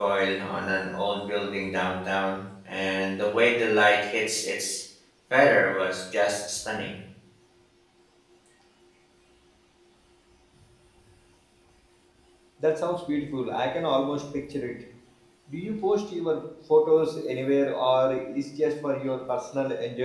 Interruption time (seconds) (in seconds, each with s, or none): none